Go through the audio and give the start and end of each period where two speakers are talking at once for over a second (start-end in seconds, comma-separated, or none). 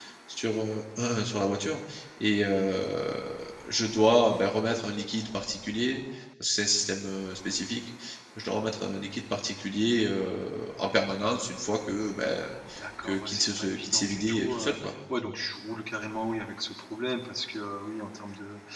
13.0-14.7